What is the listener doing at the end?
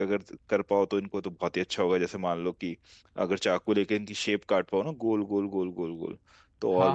taking over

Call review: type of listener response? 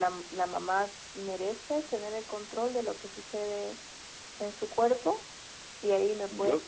listening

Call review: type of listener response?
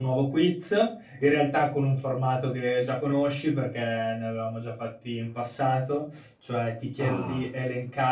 listening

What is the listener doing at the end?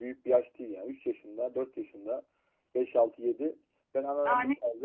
listening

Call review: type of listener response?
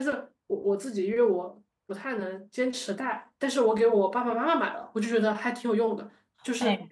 listening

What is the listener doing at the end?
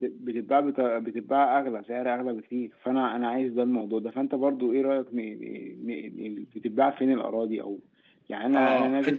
taking over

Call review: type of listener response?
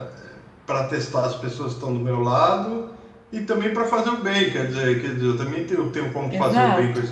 taking over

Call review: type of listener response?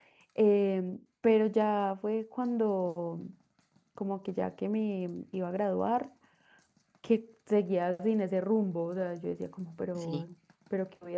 listening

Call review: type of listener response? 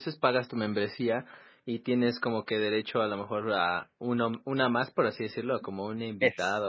taking over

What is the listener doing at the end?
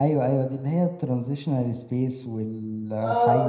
taking over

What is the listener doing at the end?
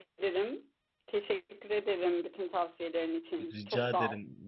taking over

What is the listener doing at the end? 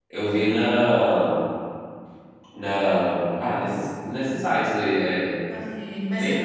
taking over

